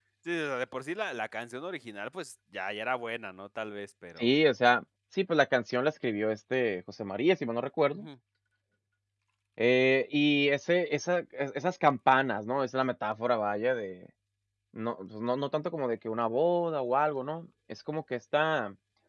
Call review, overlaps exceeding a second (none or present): none